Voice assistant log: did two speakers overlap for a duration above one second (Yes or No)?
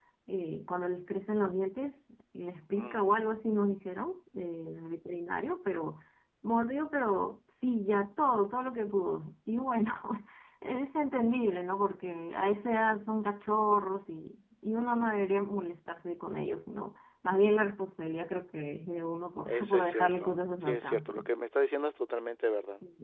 Yes